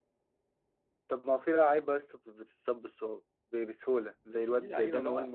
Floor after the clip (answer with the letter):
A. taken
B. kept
A